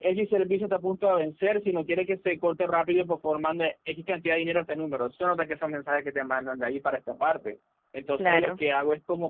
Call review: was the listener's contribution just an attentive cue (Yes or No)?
Yes